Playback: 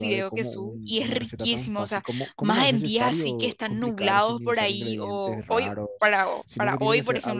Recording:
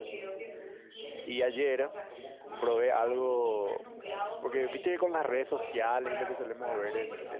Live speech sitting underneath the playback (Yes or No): No